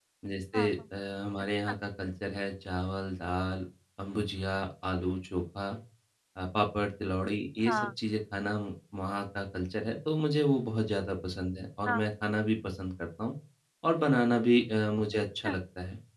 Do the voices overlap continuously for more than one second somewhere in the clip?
No

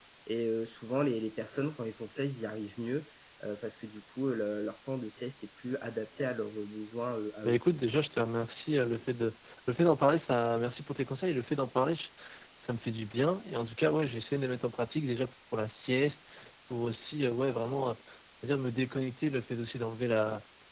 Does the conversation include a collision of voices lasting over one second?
No

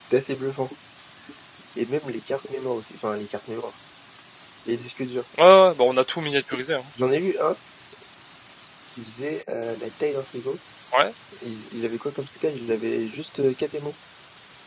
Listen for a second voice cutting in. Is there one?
No

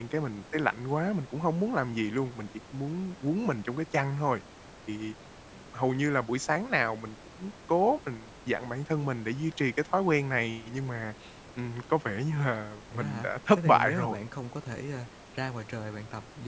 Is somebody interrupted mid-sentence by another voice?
Yes, from 12.9 s

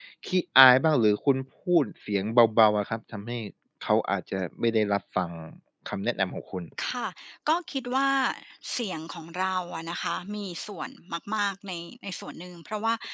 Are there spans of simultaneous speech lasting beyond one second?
No

